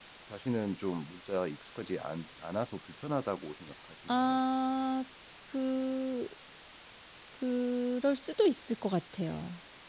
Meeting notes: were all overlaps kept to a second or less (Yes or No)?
Yes